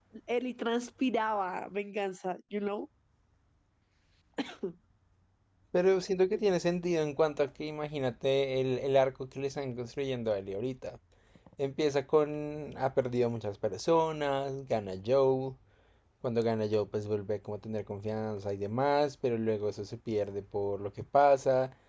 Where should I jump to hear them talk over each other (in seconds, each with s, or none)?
none